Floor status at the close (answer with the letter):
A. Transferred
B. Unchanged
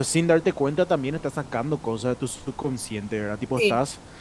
B